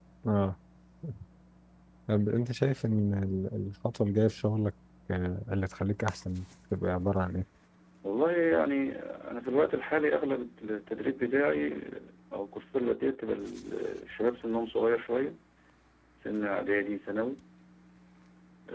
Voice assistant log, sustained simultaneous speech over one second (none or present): none